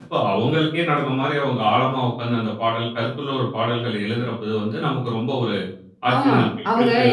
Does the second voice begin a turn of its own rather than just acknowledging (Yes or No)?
Yes